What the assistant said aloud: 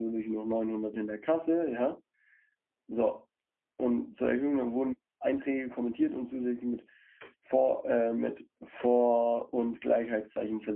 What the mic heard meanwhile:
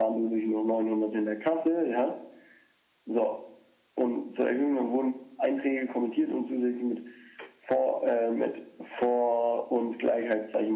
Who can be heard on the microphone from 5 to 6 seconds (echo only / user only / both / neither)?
echo only